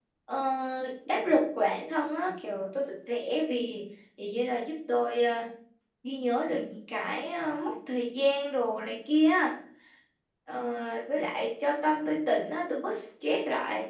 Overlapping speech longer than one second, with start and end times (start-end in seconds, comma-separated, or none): none